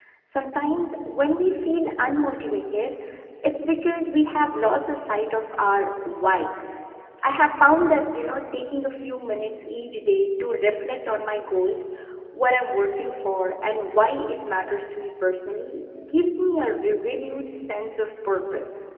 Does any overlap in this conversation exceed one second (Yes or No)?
No